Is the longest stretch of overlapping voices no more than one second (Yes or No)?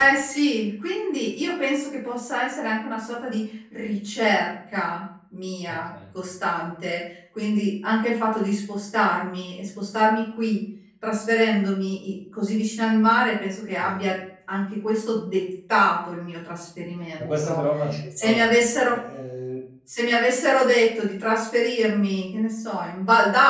Yes